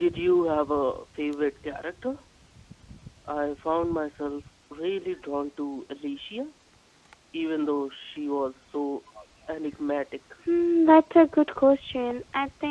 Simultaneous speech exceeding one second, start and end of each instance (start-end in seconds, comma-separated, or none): none